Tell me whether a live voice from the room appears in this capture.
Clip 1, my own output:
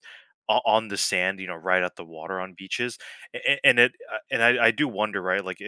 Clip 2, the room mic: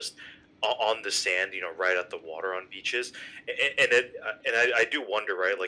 No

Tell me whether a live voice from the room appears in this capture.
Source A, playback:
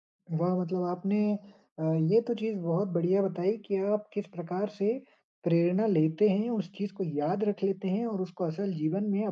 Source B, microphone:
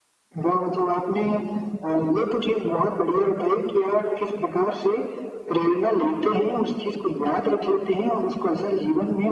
No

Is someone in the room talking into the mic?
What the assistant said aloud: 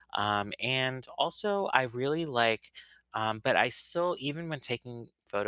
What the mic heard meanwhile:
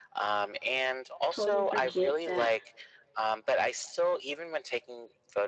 Yes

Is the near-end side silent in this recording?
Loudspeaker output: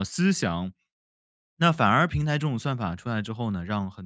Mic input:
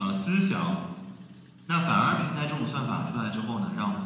Yes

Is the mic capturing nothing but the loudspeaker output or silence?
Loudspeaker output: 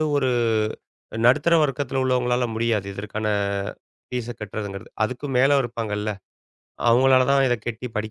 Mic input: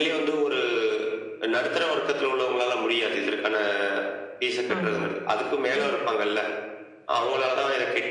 No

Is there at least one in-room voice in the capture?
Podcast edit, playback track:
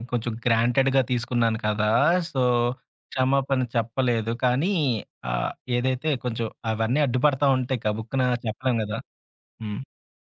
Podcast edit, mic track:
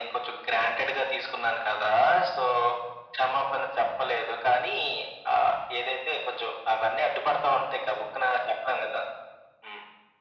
No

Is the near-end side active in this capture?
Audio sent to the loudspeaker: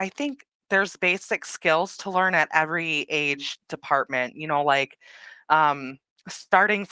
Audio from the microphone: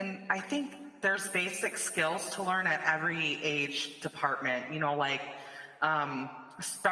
No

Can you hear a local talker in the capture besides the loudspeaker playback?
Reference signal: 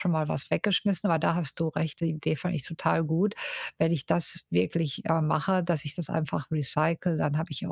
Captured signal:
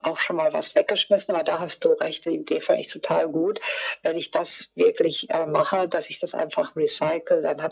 No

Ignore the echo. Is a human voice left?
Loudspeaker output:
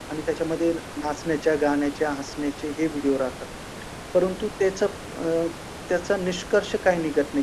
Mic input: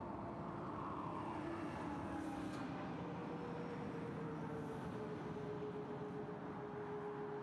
No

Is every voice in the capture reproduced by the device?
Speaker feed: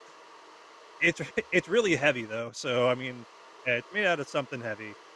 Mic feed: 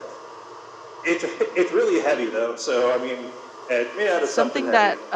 No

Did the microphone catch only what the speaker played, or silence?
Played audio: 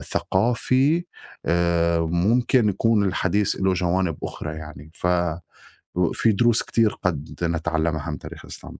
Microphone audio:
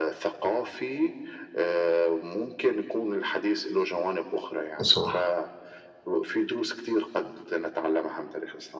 No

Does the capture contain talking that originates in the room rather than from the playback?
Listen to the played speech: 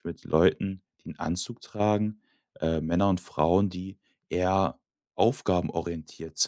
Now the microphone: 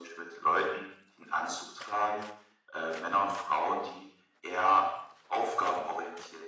No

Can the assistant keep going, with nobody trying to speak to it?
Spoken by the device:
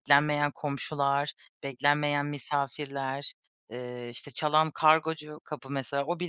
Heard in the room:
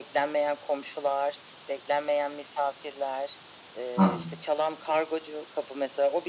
No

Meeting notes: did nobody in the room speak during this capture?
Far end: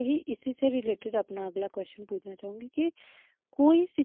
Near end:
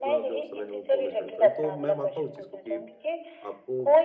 No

